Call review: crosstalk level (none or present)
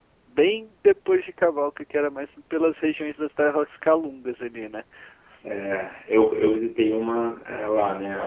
none